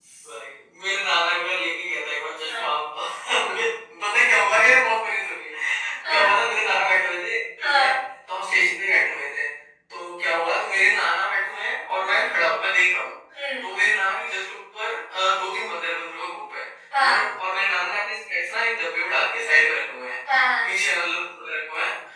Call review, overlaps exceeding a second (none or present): none